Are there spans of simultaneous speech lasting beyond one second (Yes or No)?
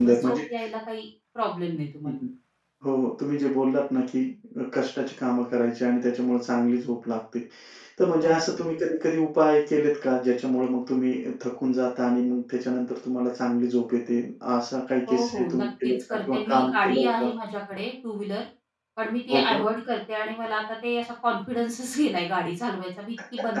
Yes